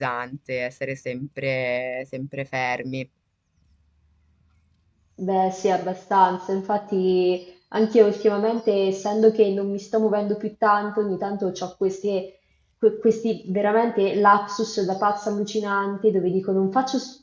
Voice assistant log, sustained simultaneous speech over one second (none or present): none